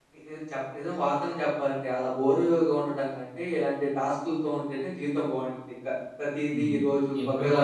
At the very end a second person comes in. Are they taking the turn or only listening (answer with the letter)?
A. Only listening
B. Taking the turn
B